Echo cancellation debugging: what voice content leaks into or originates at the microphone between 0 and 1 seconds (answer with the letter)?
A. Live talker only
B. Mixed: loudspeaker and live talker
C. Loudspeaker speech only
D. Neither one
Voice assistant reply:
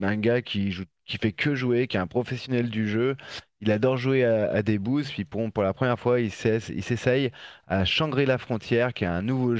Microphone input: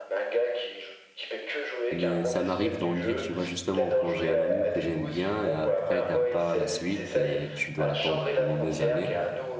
C